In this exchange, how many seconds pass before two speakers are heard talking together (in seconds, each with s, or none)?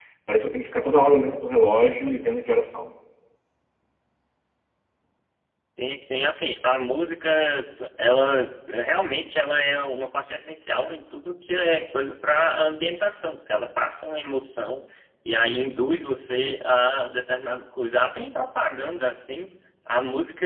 none